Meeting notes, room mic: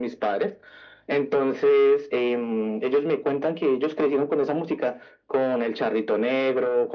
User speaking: No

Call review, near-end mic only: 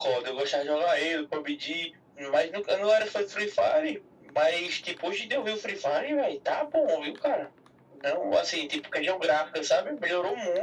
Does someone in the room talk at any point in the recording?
No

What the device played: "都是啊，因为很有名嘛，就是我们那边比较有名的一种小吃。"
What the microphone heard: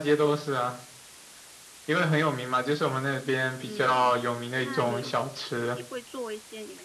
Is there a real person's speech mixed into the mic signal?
Yes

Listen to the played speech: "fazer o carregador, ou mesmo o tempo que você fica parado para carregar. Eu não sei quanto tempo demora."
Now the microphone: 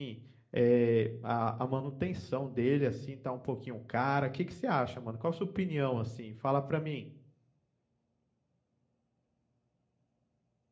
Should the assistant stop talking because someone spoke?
Yes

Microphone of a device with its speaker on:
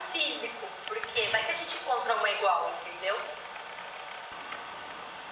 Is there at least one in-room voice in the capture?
No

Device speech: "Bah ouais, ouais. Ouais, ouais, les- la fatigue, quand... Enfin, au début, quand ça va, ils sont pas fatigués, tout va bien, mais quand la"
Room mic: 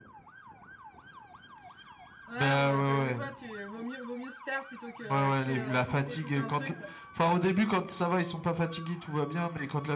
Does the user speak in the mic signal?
Yes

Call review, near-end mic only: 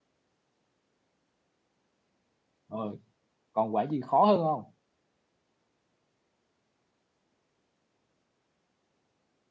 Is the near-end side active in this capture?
Yes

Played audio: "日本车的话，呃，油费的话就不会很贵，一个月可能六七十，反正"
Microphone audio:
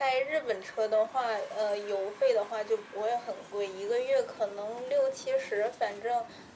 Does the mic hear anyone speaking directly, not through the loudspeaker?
No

